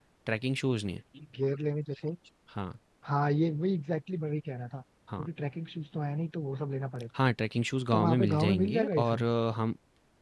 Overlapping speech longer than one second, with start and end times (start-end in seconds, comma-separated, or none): 7.9-9.2